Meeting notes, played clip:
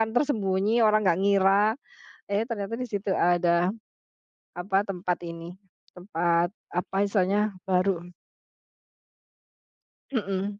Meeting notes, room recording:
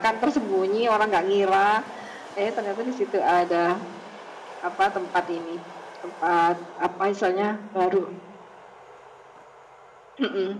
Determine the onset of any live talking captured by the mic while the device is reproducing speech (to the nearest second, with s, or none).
none